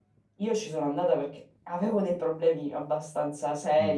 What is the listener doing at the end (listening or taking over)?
taking over